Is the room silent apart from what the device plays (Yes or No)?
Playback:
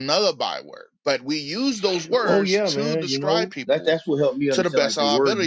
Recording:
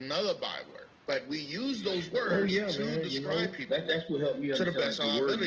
Yes